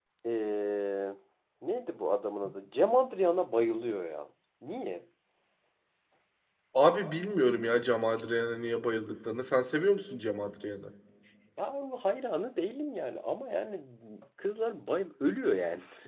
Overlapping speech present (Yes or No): No